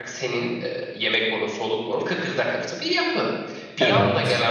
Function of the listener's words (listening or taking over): listening